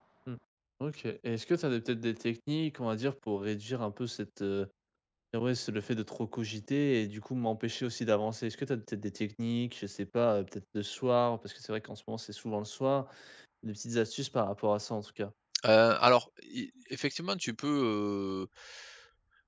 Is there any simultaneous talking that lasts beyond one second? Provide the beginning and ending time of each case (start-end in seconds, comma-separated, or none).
none